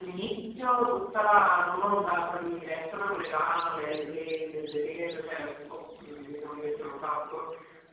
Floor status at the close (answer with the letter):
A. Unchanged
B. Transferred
A